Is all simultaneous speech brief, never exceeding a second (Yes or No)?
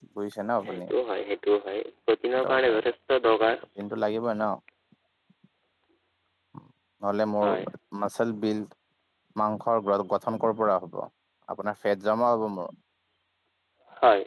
Yes